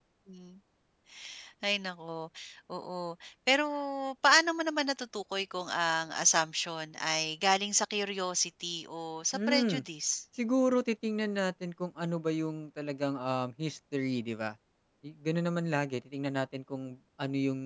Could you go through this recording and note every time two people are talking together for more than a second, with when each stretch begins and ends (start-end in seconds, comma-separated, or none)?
none